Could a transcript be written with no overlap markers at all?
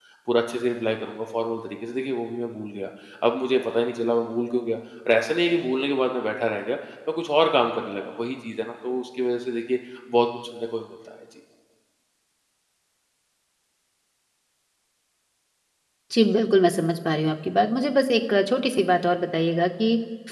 Yes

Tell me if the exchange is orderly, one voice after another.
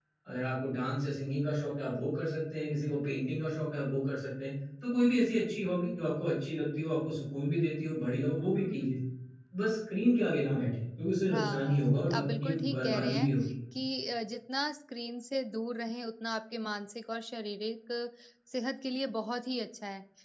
No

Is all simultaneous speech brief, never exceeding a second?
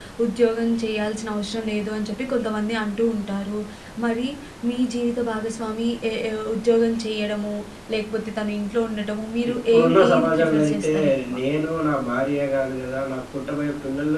No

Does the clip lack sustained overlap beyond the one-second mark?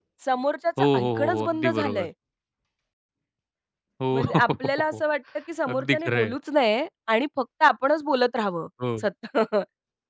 No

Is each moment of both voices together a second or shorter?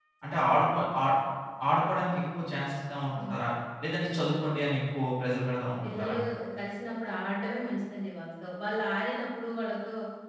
Yes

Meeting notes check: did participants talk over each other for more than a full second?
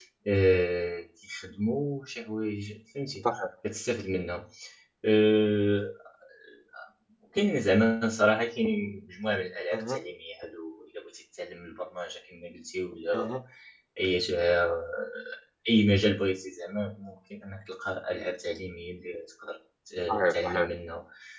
No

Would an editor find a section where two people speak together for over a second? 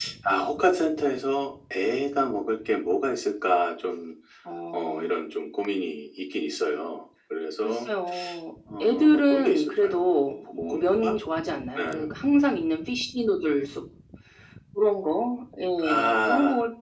Yes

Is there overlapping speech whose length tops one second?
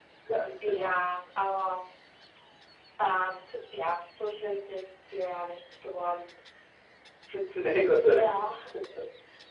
No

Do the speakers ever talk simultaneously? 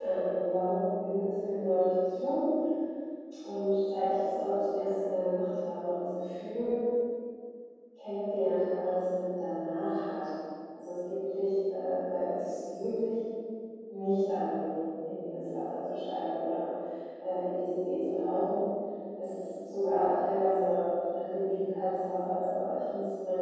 No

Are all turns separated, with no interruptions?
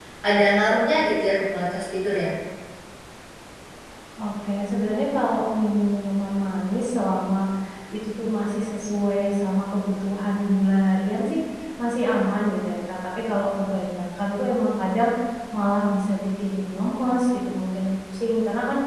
Yes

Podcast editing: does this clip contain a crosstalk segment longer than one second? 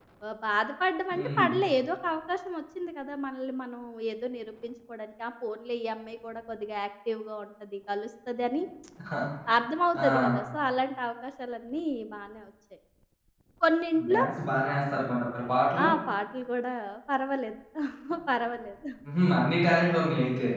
No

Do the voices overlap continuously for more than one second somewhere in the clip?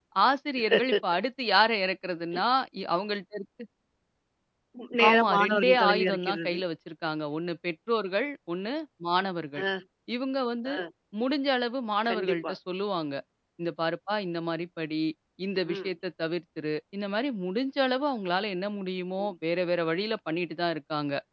Yes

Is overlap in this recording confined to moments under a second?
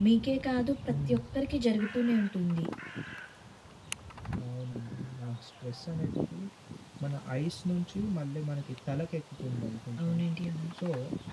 Yes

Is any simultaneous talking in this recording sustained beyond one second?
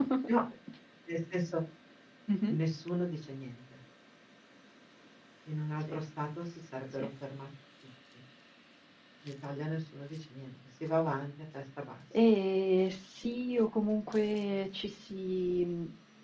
No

